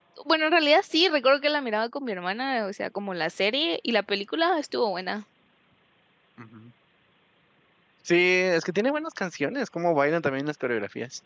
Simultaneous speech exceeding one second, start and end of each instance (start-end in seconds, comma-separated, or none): none